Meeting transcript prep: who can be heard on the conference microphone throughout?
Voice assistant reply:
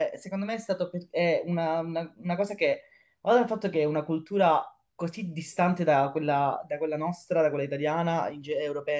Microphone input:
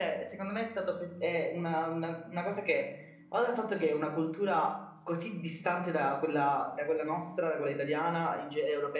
echo only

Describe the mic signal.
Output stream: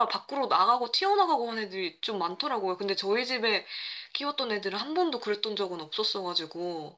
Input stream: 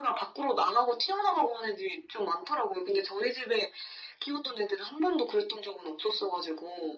echo only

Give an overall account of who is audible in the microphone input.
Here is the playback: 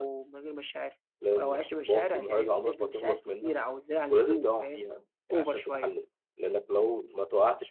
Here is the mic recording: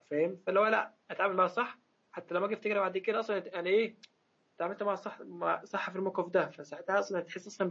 user only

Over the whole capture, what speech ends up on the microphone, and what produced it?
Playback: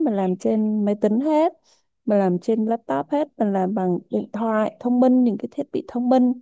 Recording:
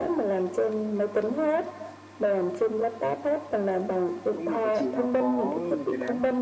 both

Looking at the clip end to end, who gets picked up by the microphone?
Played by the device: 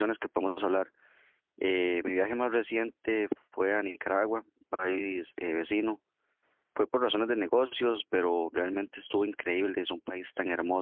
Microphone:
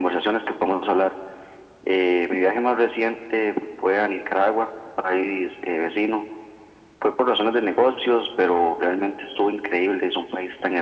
echo only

